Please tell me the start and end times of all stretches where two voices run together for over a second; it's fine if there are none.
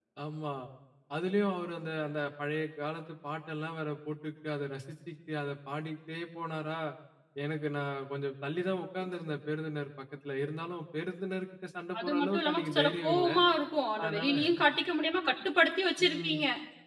12.0-13.3

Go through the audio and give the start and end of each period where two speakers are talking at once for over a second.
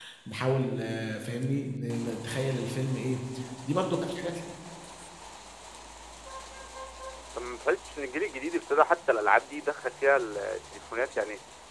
none

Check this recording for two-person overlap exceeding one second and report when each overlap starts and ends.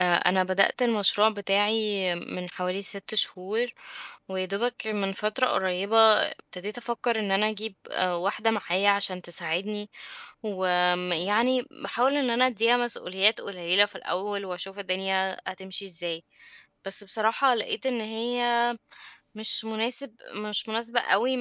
none

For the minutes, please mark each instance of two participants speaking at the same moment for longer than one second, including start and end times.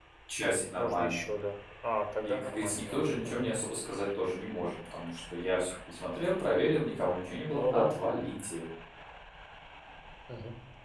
2.2-3.5

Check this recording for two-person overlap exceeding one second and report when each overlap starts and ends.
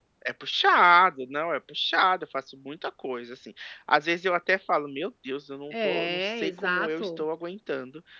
5.7-7.2

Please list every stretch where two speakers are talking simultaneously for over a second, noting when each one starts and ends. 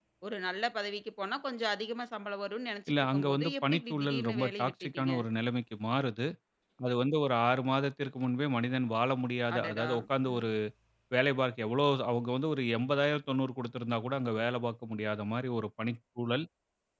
2.9-5.1

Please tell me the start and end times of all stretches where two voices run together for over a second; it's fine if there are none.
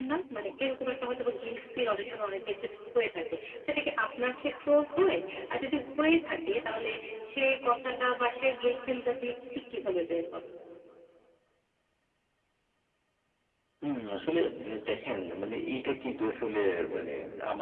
none

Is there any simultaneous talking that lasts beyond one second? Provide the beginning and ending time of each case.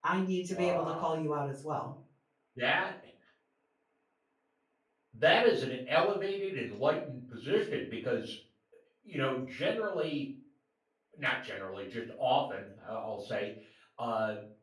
none

